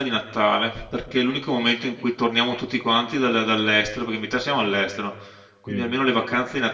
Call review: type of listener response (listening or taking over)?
listening